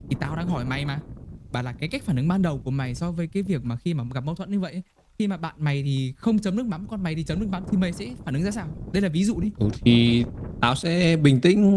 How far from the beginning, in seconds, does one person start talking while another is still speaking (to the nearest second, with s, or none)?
none